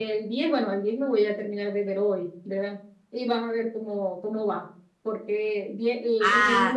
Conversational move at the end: listening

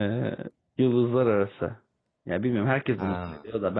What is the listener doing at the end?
listening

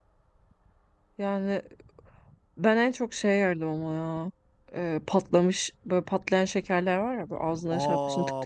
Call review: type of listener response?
taking over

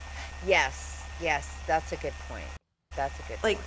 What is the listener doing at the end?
taking over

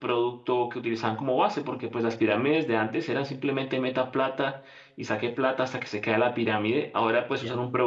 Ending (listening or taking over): listening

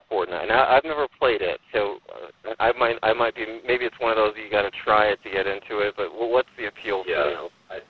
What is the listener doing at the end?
taking over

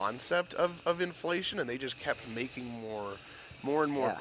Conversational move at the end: listening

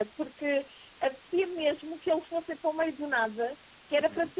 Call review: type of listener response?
listening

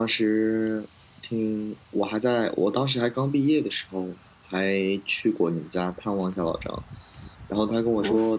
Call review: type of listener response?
listening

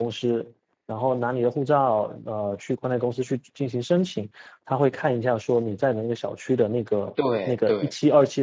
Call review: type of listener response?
listening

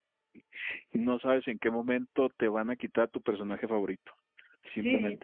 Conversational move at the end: taking over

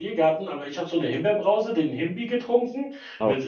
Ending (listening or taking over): listening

